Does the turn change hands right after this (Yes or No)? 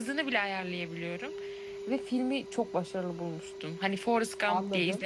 Yes